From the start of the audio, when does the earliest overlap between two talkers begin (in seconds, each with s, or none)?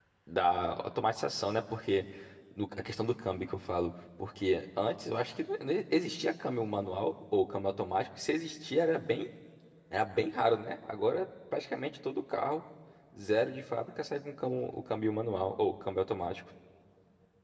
none